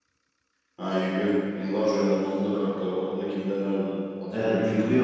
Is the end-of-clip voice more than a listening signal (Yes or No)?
Yes